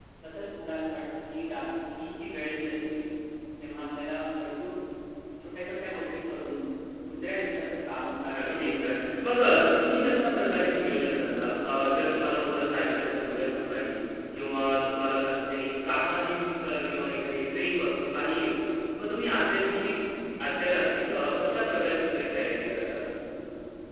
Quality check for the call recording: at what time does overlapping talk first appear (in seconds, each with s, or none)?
8.3 s